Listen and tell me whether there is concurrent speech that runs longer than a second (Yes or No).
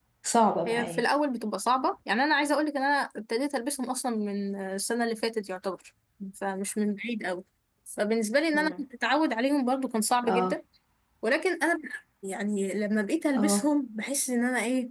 No